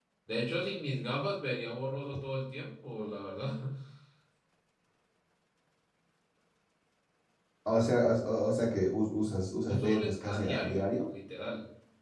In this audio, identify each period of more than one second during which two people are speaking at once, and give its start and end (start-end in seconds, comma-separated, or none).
9.6-11.1